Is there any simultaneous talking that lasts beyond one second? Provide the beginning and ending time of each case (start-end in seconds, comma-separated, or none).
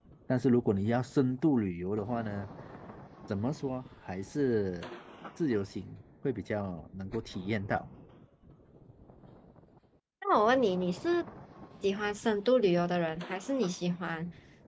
none